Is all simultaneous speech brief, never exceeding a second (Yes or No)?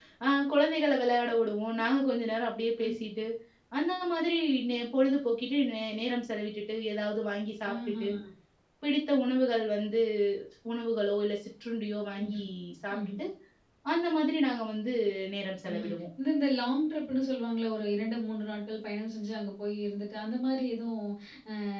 Yes